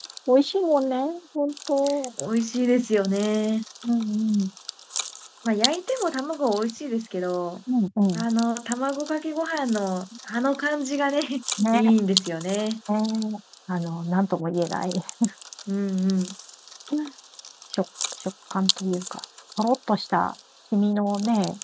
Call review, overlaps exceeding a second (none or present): none